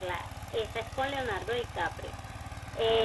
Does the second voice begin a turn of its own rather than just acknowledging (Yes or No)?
No